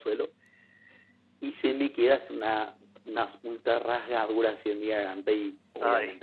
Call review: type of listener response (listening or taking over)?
listening